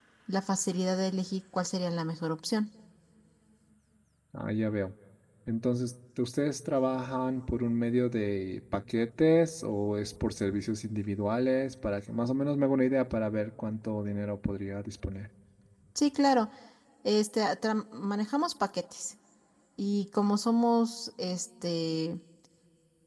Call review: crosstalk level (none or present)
none